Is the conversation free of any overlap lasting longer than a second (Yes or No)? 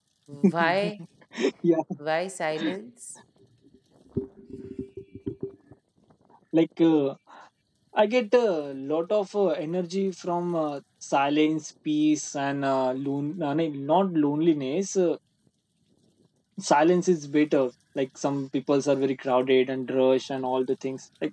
Yes